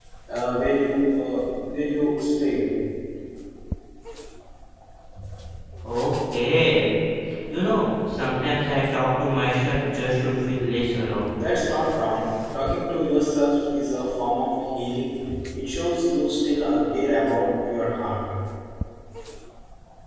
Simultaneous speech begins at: none

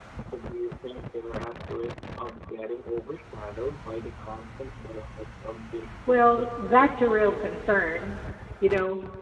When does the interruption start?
6 s

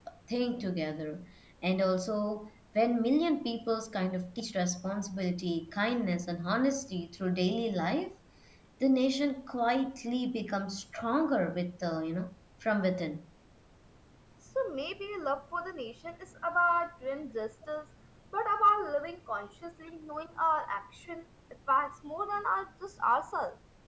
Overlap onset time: none

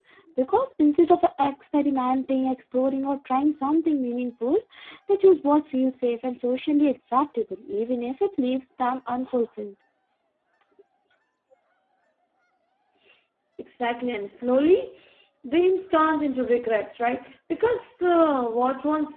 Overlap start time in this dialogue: none

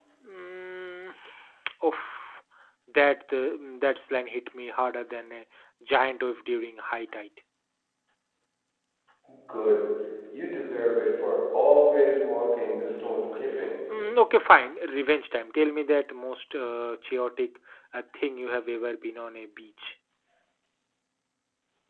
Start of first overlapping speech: none

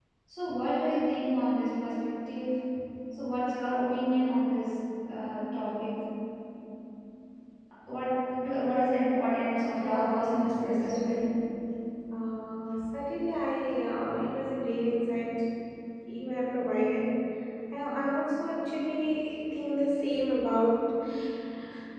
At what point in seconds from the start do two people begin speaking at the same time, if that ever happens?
10 s

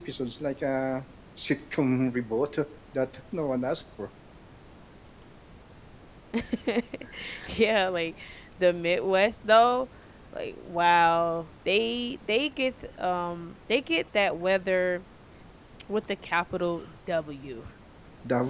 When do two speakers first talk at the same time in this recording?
none

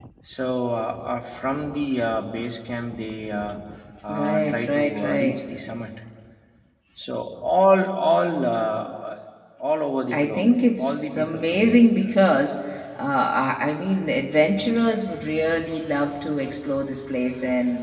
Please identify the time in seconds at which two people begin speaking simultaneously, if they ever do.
4 s

